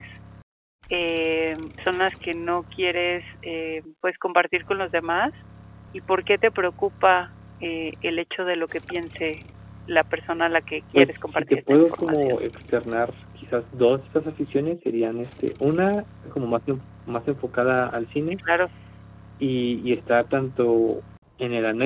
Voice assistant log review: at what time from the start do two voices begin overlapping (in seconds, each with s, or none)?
10.9 s